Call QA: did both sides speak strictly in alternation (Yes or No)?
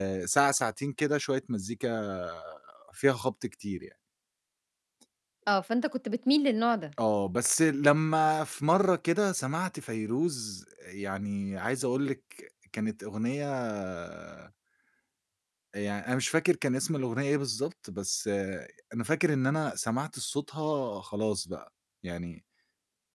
Yes